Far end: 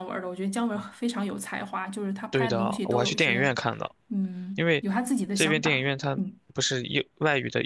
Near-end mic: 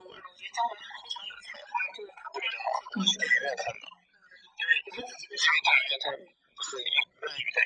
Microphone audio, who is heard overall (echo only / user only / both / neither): both